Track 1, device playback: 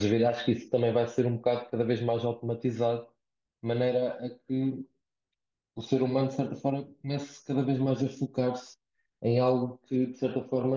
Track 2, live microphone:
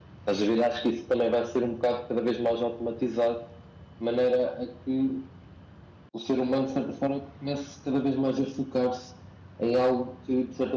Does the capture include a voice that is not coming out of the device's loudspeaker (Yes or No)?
No